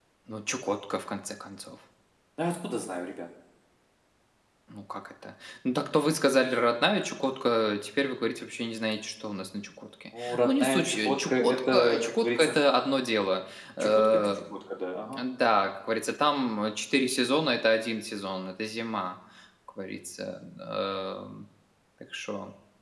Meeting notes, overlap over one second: present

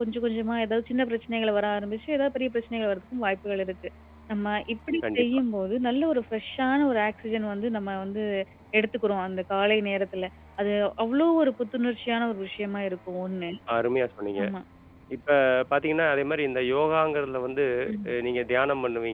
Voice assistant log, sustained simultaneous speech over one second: none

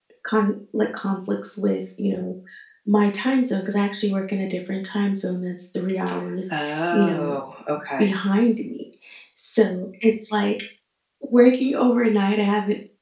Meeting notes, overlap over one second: none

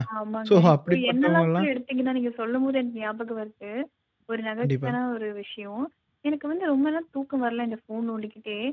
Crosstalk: present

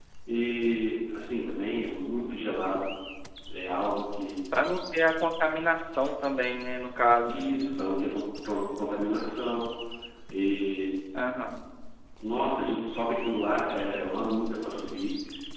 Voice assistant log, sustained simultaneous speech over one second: none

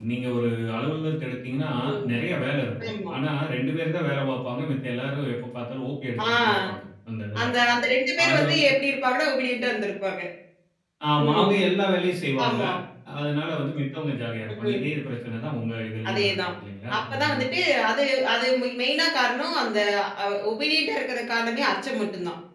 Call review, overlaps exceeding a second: none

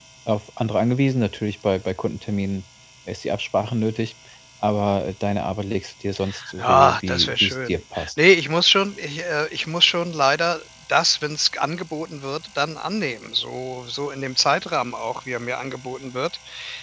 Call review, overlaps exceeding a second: present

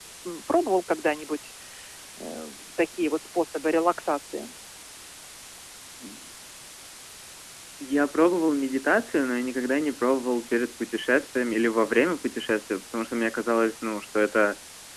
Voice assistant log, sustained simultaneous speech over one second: none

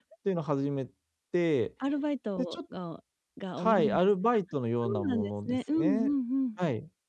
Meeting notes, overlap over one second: present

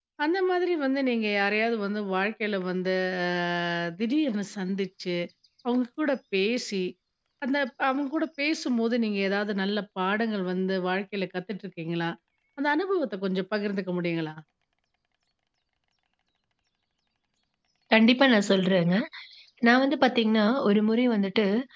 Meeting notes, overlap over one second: none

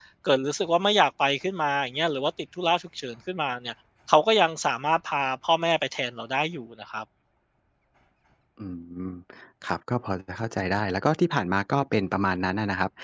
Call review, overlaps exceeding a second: none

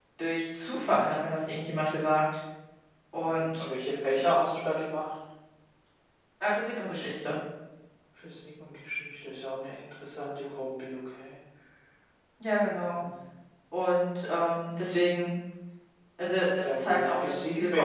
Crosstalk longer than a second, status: present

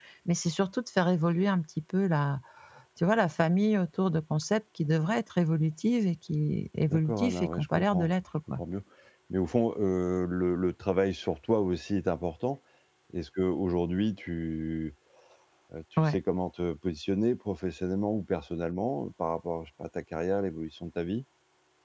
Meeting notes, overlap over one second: present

